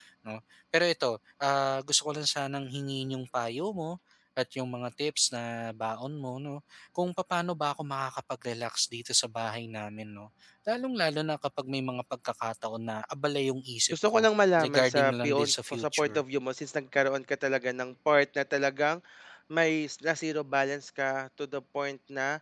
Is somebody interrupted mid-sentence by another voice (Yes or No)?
Yes